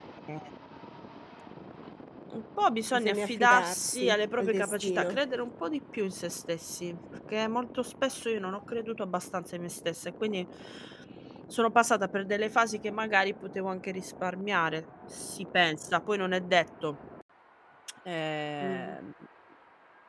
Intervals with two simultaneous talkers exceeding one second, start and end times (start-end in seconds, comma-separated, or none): 2.9-5.2